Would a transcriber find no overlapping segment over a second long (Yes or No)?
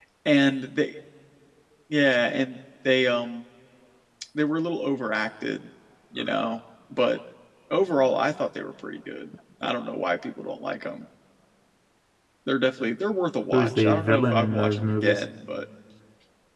No